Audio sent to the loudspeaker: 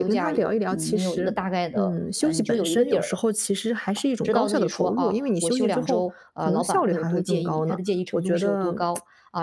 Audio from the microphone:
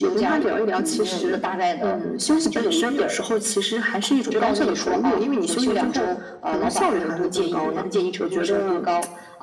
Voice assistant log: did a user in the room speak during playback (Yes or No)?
Yes